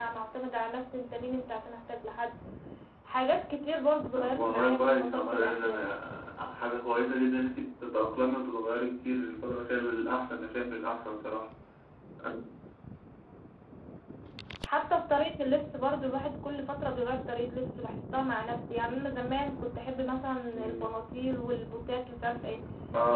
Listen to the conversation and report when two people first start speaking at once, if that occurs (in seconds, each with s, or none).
4.1 s